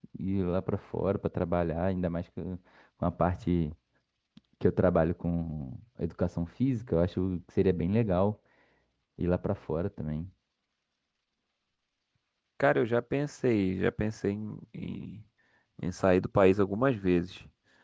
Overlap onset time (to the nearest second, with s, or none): none